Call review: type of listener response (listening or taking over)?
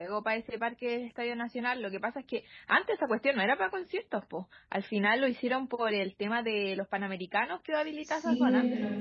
taking over